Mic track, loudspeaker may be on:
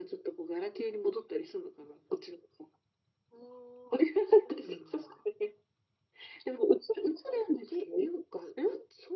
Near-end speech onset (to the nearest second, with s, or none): none